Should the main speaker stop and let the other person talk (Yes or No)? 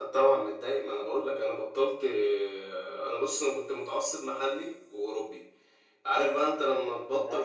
No